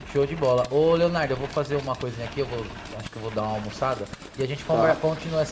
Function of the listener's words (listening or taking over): listening